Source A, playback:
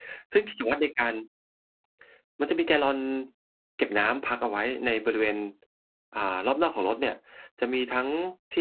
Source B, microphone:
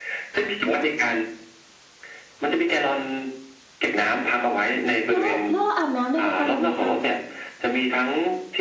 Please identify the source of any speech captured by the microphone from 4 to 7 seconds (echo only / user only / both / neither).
both